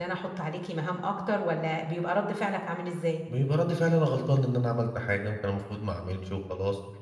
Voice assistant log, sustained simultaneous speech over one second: none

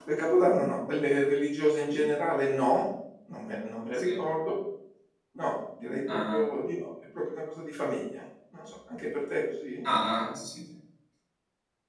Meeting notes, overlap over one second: none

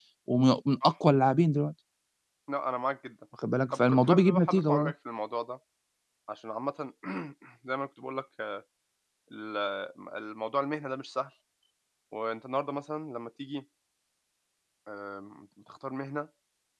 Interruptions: present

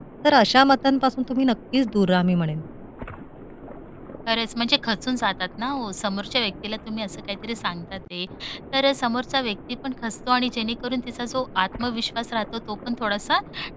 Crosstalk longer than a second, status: none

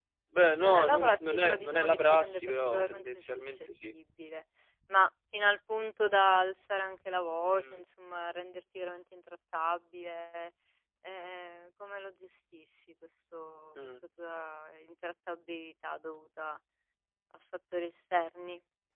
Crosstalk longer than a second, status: present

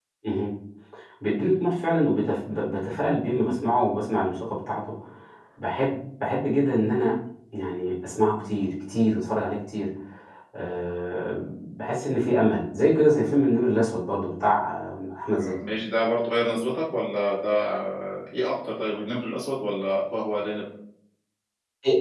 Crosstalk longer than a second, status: none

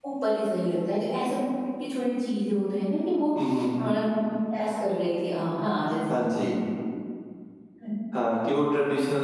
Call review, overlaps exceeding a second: none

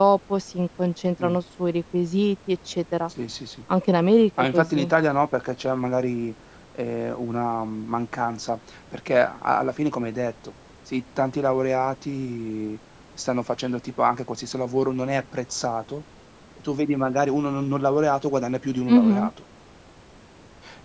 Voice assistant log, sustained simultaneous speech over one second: none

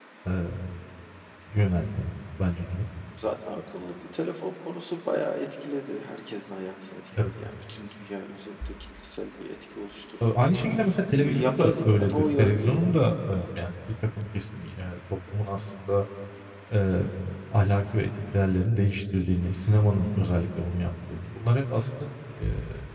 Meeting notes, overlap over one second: present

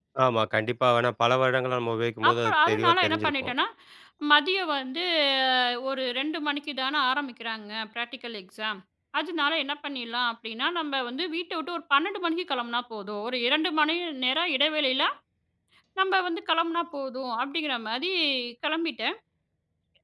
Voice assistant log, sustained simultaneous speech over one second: present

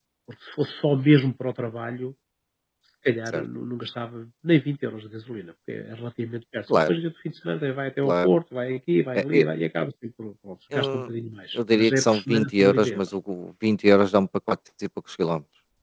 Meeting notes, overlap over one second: present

